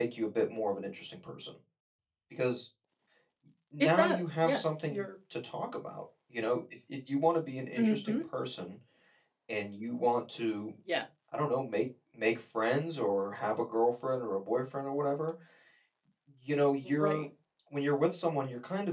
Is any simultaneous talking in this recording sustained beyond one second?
Yes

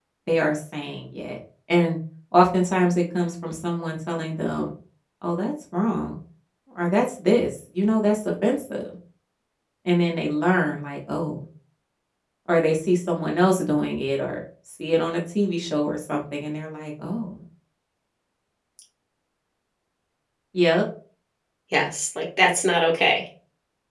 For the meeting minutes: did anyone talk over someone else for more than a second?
No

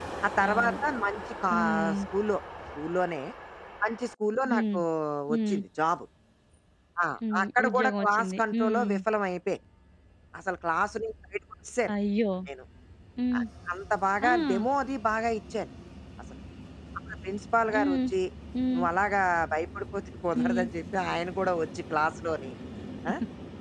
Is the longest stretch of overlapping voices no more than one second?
No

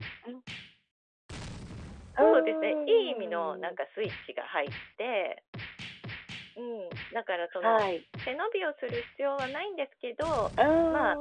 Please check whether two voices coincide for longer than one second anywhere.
Yes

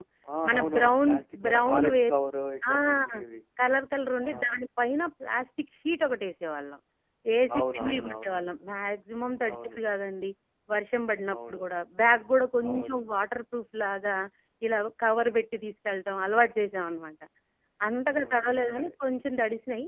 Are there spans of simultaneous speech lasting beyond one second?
Yes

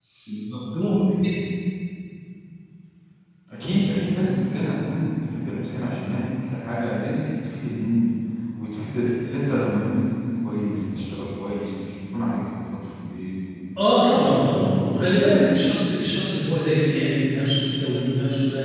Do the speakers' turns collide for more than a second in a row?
Yes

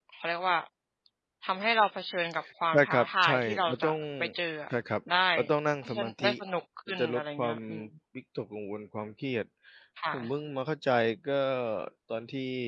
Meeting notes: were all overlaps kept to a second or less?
No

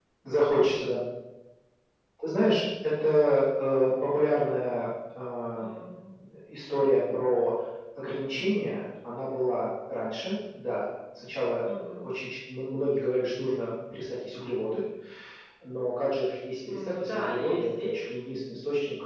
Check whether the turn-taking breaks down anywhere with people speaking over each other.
Yes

